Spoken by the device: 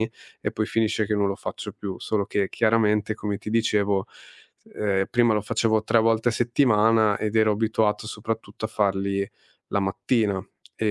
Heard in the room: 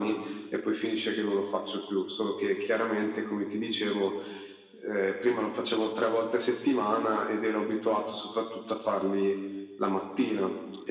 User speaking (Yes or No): No